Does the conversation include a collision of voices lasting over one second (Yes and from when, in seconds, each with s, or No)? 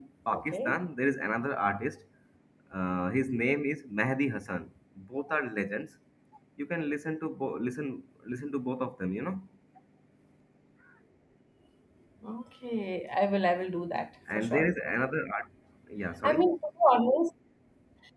No